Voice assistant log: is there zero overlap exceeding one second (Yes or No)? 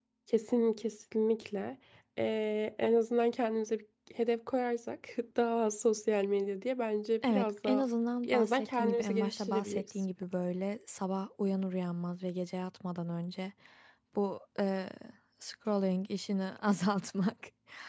No